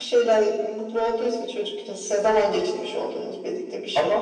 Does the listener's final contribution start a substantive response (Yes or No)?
Yes